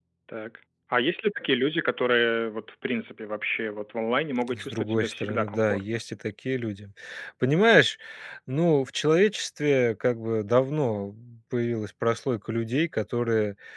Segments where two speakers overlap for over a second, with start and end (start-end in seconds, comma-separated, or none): 4.5-5.8